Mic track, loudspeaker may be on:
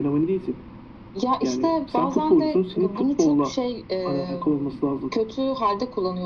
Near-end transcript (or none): none